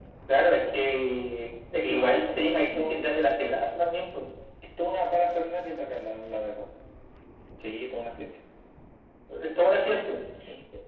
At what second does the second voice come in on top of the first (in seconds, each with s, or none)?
1.7 s